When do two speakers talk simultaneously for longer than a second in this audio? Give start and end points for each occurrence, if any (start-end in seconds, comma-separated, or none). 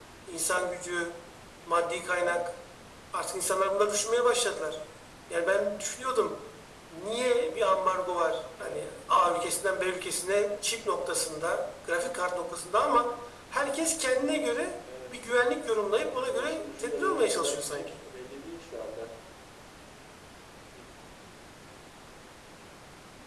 16.1-18.0